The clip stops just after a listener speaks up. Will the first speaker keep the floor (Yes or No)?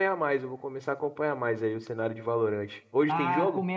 No